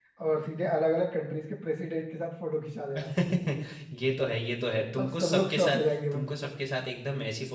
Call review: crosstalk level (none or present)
present